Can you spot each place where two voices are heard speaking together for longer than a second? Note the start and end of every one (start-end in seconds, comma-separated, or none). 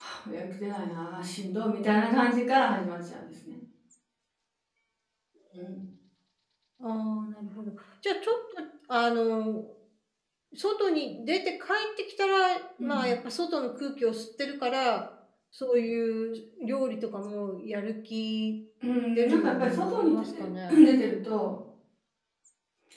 19.1-20.8